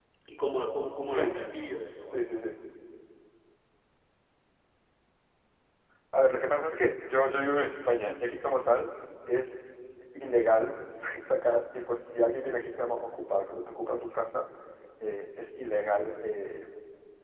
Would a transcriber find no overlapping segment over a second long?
Yes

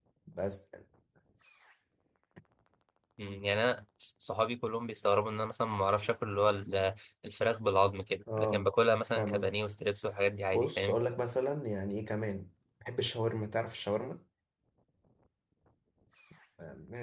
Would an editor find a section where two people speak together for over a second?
No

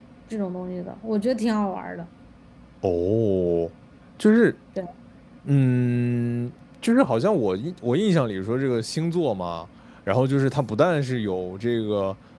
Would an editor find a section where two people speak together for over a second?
No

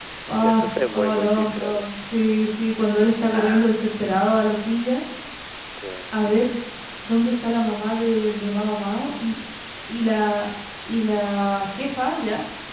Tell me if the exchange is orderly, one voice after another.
No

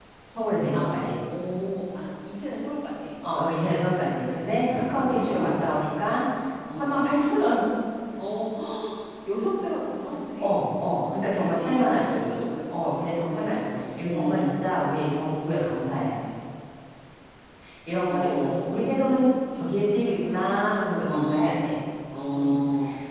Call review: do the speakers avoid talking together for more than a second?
No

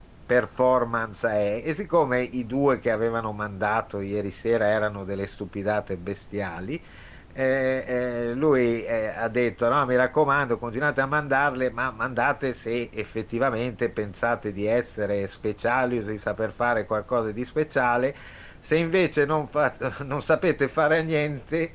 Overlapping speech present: No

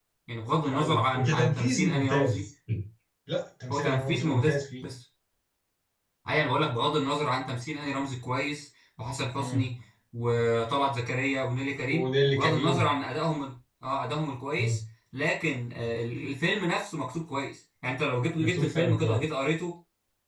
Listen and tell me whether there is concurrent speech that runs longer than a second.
Yes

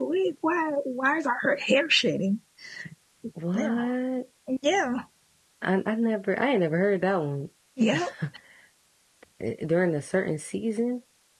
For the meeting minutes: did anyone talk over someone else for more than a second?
No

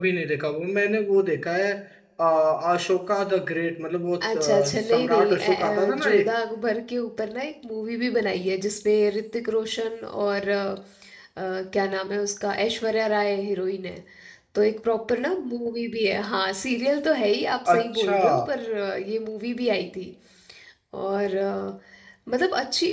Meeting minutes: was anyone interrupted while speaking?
Yes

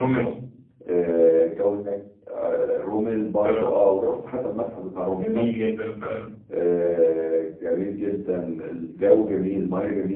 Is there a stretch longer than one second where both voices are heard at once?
No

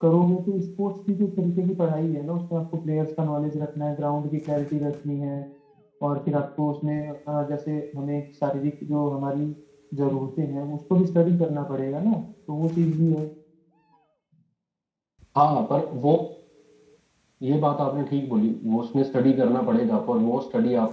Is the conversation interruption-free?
Yes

